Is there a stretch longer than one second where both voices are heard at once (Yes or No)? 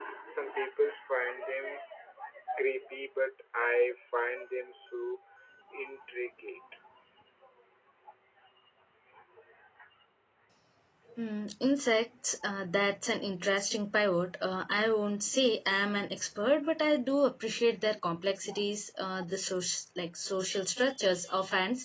No